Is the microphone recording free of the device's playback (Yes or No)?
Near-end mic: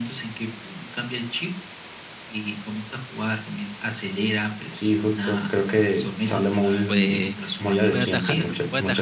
No